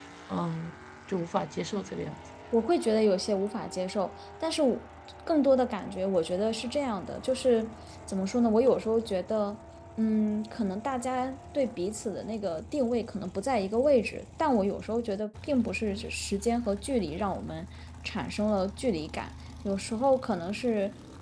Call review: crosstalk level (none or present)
none